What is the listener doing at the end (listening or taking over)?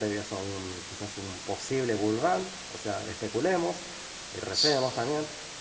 listening